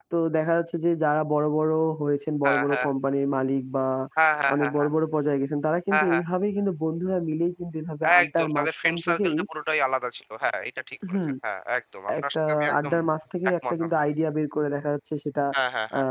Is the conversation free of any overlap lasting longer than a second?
No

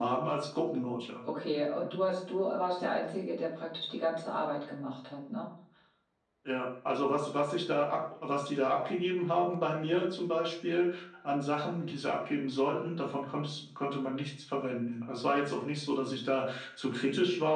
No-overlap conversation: Yes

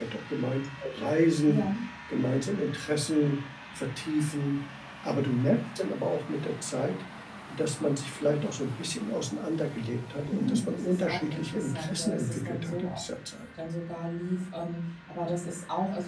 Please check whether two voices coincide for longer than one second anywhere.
Yes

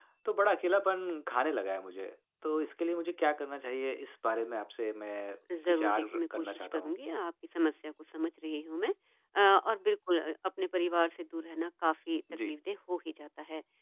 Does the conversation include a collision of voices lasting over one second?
Yes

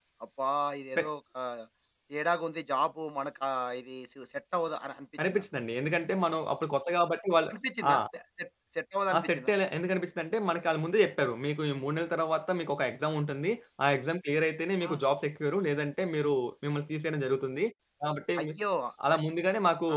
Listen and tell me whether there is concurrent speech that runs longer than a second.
No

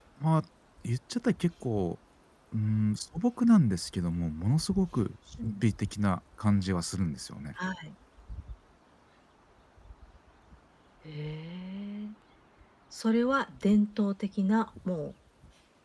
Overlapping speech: No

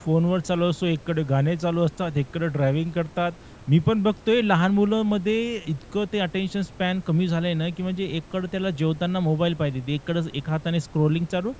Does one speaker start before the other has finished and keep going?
No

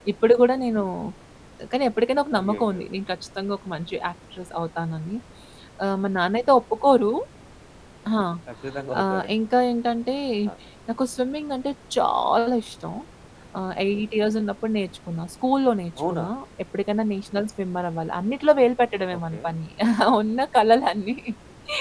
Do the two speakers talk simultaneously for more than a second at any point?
No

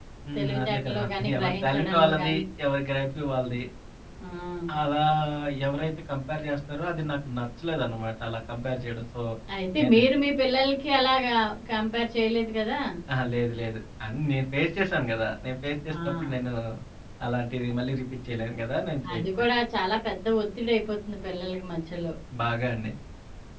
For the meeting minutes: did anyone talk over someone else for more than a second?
Yes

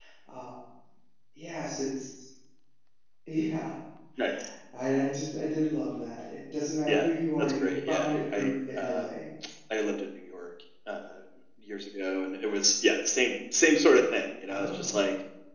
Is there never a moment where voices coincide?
No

